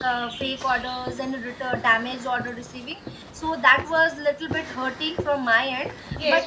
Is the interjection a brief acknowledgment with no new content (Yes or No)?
No